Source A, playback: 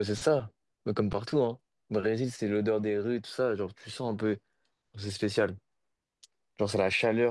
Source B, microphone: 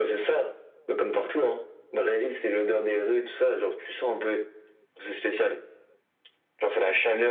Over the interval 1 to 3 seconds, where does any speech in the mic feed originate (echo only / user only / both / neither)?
echo only